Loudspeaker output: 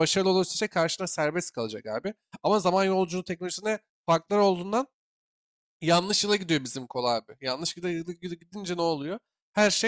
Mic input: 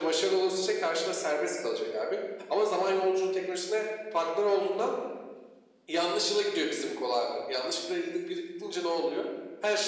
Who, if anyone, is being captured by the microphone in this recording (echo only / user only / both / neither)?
echo only